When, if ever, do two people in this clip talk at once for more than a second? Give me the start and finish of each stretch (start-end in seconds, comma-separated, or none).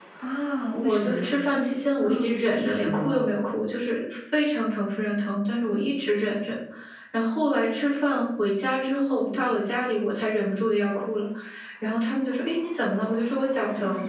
2.0-3.3